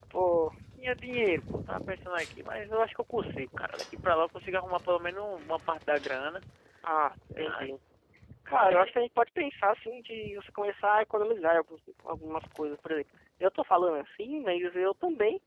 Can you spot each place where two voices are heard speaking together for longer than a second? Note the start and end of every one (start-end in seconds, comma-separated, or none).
none